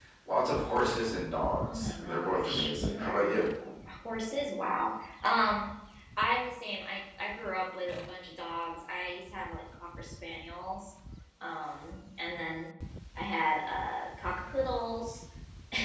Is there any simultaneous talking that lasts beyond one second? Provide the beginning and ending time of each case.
1.6-3.4

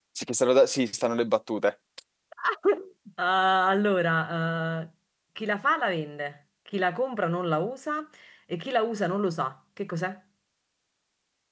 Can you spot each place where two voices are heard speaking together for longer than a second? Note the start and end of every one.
none

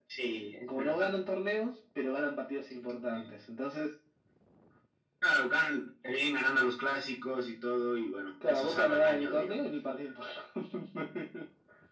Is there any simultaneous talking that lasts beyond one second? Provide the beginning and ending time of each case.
8.4-9.7

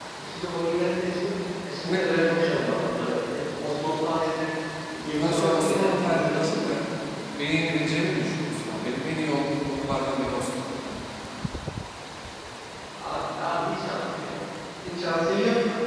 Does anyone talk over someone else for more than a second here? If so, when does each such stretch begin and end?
5.2-6.7

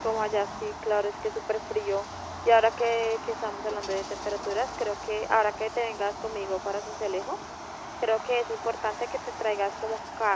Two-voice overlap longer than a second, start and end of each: none

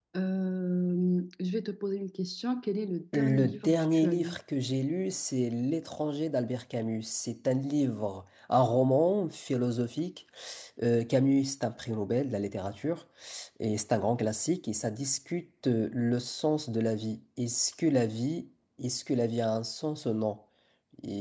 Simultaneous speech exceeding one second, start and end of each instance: 3.1-4.4

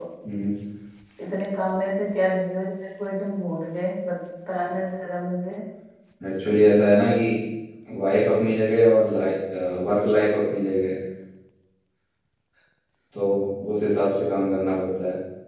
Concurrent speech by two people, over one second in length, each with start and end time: none

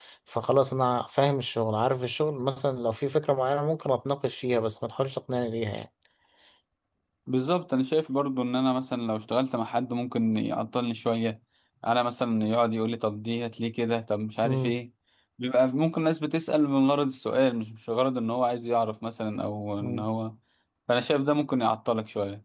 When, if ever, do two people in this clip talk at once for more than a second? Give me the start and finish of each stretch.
none

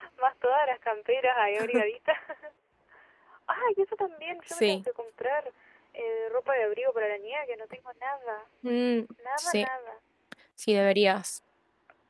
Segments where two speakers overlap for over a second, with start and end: none

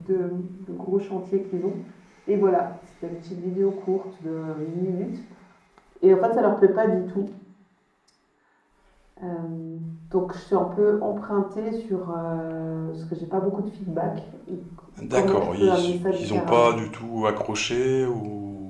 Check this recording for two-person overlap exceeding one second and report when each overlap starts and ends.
15.1-16.7

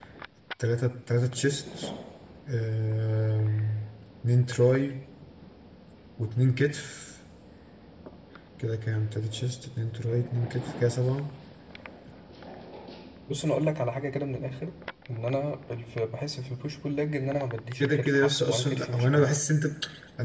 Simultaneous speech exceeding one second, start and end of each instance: 17.8-19.3

